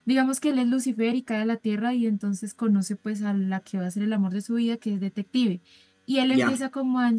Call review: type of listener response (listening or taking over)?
listening